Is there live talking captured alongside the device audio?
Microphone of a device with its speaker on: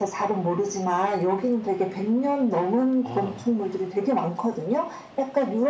Yes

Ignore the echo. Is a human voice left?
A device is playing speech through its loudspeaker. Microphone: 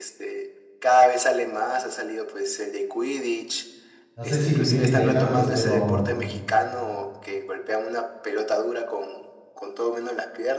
Yes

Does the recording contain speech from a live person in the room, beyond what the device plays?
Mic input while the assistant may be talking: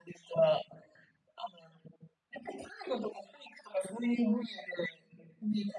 No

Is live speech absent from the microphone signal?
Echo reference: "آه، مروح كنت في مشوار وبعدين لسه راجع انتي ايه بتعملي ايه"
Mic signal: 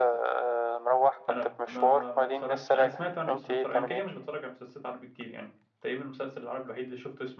No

